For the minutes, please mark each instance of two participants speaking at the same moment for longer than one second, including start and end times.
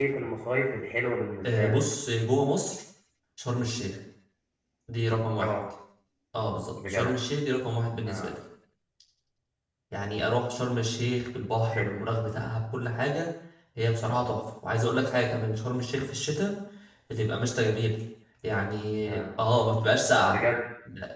none

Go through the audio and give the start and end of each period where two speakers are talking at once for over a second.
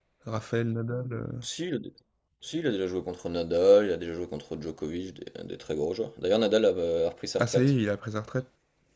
none

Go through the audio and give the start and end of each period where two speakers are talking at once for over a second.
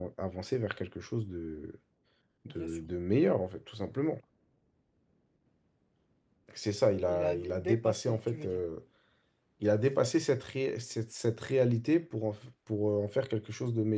7.1-8.6

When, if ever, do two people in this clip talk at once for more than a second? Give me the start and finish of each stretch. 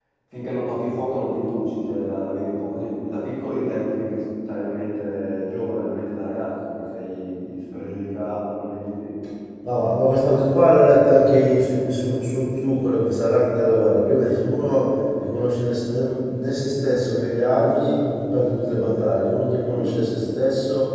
none

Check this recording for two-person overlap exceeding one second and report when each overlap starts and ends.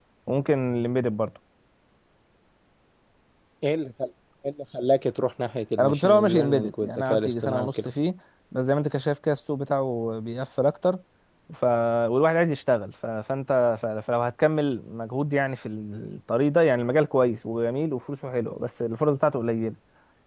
5.8-7.9

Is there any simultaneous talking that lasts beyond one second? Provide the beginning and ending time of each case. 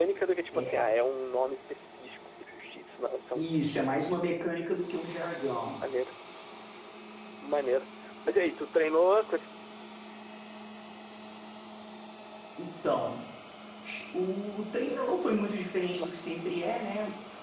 none

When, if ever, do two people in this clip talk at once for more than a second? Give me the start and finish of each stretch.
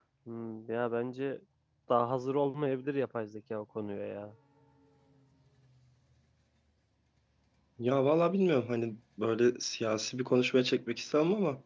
none

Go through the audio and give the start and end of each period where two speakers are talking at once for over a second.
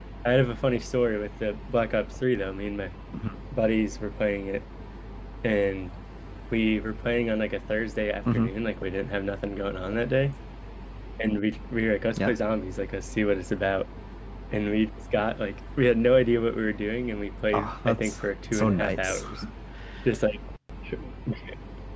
17.5-19.2

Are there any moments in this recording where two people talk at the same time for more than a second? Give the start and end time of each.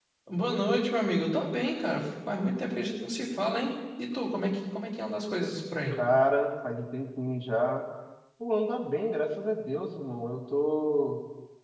none

